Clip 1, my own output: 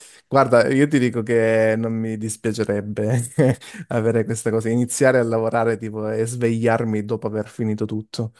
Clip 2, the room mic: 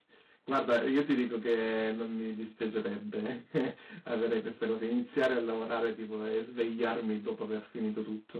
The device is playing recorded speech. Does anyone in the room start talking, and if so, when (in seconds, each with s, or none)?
none